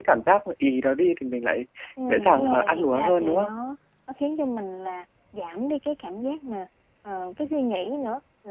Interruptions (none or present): present